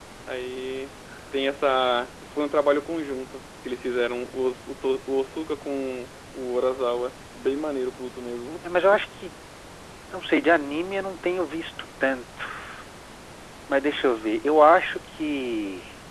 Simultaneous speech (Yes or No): No